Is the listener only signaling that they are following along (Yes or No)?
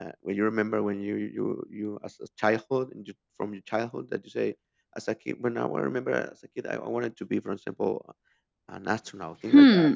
No